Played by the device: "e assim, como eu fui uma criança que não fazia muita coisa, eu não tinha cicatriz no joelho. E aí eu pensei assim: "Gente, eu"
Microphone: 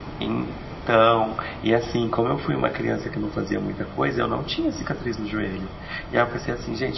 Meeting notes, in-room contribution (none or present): none